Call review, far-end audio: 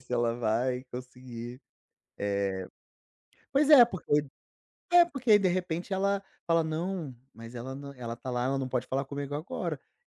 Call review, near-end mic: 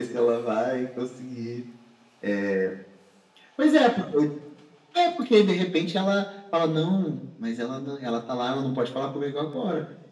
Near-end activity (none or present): none